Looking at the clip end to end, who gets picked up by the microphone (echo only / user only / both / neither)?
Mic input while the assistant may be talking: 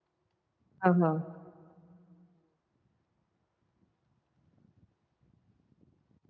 user only